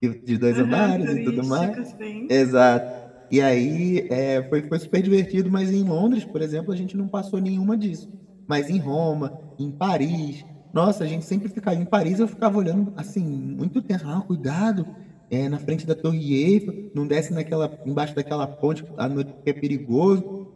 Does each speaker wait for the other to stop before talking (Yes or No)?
No